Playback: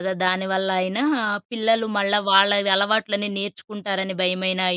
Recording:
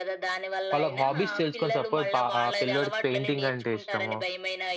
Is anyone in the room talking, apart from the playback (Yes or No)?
Yes